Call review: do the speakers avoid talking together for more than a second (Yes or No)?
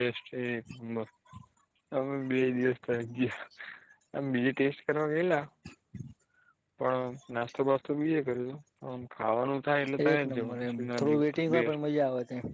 No